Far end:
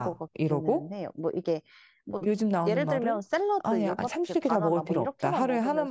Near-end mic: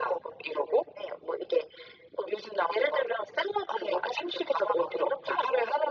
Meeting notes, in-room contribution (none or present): none